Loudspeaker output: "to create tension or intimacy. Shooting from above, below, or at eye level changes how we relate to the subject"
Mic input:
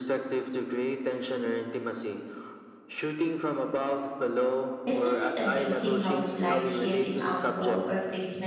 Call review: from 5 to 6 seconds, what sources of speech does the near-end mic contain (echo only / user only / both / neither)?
both